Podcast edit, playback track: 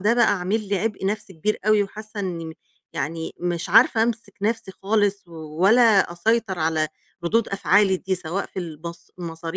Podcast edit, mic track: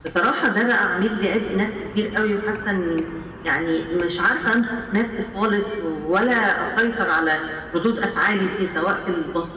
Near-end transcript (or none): none